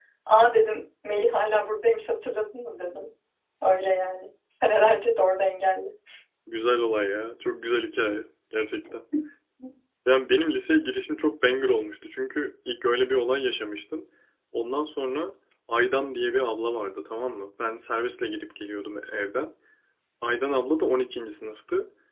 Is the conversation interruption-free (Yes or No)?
Yes